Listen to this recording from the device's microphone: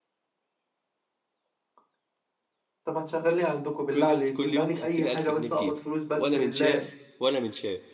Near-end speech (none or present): present